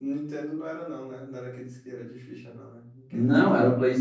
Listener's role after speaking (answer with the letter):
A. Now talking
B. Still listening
A